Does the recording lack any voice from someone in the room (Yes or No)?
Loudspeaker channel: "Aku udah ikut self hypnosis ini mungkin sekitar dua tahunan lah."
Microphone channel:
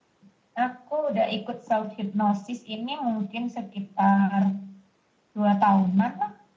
Yes